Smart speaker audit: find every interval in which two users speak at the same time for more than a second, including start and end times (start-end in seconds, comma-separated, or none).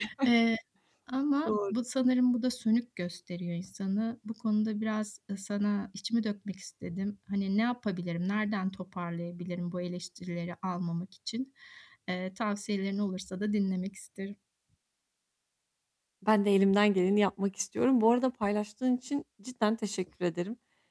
none